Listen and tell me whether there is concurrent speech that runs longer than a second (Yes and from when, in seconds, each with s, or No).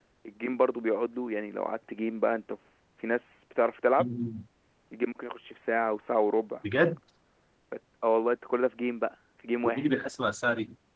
No